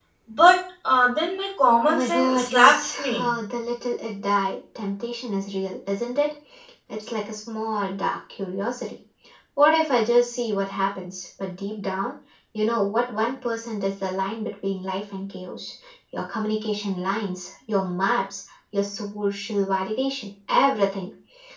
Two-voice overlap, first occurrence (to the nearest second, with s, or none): 2 s